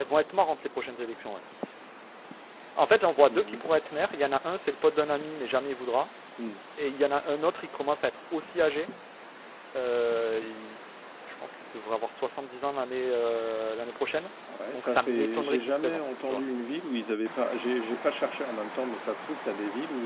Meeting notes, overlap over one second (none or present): present